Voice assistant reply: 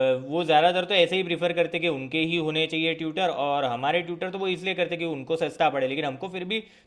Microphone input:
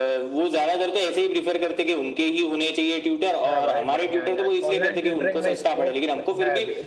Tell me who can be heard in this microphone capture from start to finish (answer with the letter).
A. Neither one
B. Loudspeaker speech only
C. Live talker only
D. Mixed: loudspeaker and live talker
D